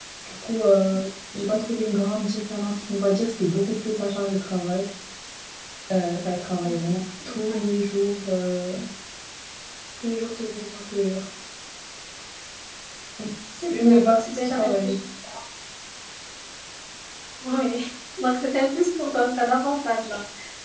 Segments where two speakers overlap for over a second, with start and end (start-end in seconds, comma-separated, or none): 13.7-14.9